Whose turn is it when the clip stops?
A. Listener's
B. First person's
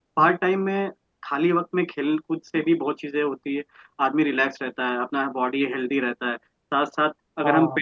B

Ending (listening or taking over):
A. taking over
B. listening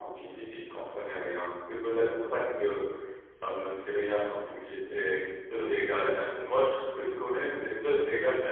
B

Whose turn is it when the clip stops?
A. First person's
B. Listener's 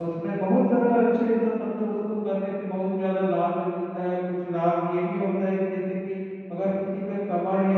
A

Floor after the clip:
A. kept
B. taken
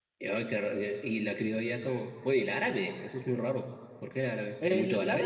B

